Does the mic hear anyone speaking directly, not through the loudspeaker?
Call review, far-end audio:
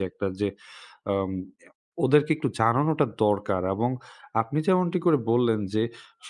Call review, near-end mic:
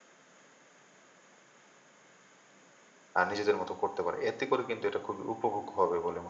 Yes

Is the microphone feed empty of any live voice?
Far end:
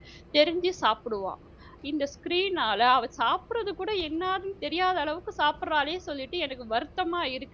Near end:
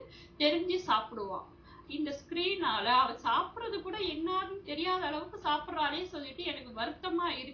Yes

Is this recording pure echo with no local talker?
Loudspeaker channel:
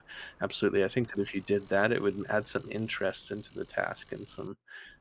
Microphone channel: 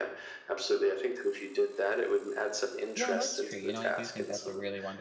No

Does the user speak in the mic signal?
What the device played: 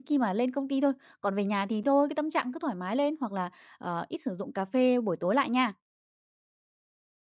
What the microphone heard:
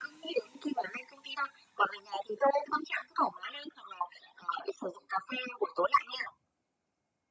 No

